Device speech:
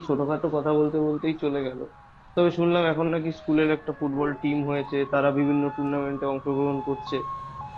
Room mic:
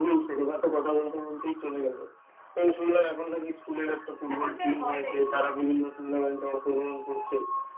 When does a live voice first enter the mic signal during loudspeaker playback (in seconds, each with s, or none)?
4.3 s